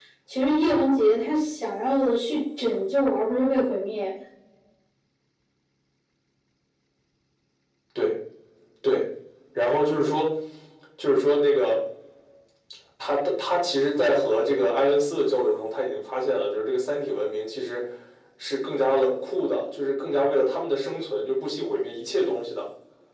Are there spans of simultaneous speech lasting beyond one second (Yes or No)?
No